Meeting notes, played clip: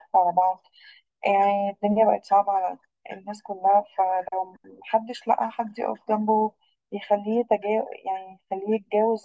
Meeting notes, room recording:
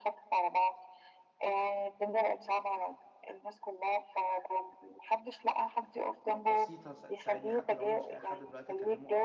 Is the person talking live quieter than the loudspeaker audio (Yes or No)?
Yes